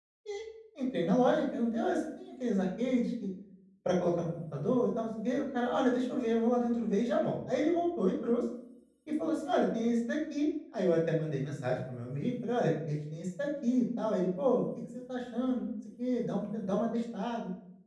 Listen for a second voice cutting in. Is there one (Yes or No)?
No